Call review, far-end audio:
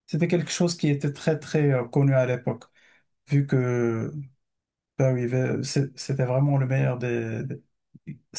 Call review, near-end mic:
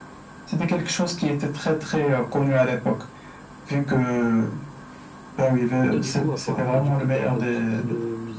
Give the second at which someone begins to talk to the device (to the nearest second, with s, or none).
6 s